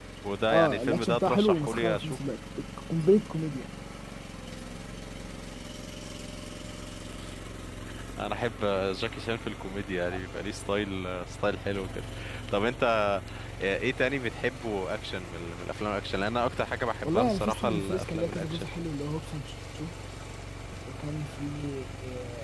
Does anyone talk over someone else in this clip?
Yes, from 0.5 s

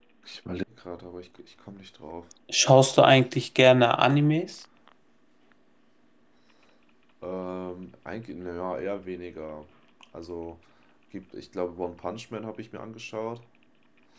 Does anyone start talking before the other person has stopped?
No

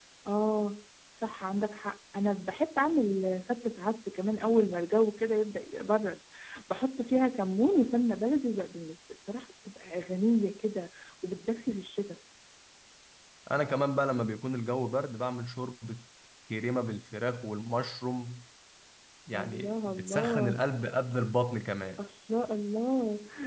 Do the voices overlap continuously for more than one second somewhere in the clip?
Yes, from 19.3 s

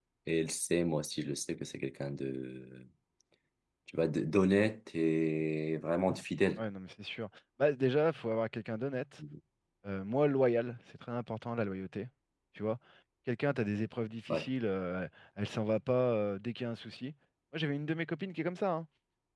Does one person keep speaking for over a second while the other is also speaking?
No

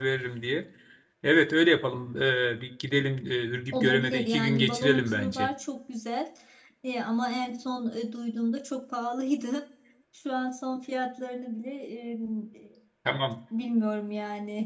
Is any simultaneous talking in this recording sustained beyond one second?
Yes, from 3.7 s

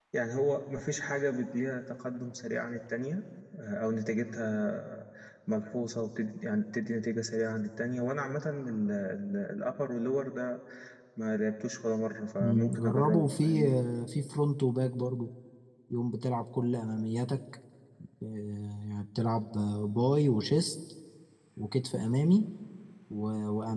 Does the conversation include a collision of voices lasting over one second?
Yes, from 12.4 s

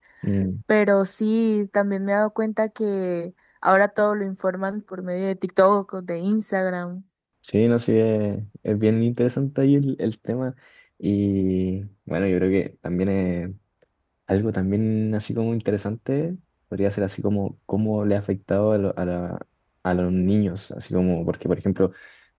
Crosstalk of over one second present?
No

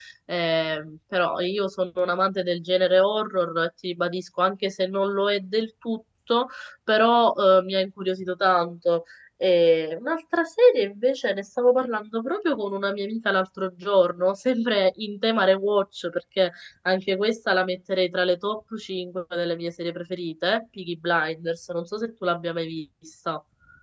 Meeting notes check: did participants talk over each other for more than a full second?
No

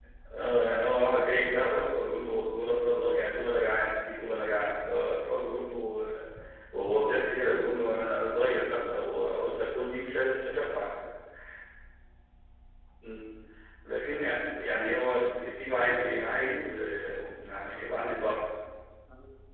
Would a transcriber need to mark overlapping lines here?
Yes, from 8.3 s

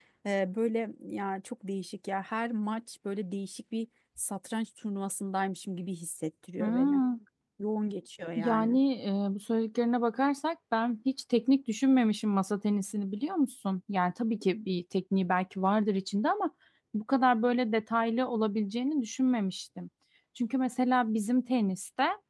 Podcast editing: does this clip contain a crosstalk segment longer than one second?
No

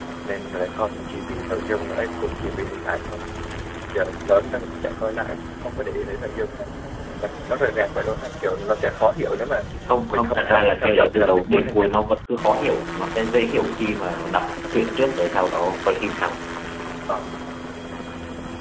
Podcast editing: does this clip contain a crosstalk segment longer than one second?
Yes, from 10.1 s

